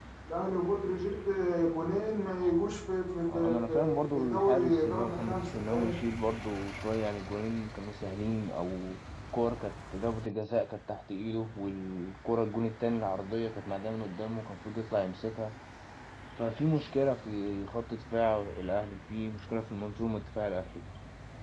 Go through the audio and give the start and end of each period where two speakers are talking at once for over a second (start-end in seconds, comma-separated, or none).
3.3-6.0